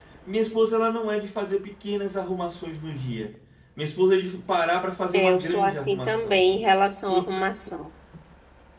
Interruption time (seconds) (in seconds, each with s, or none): 5.1 s